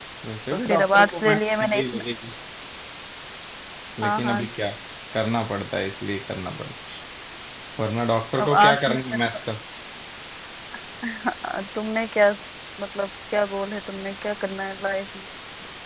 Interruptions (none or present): present